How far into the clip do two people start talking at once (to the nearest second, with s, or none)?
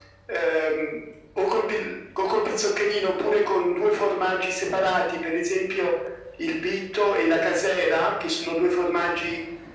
none